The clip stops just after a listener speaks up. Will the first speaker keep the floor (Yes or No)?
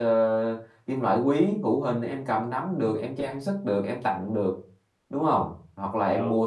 Yes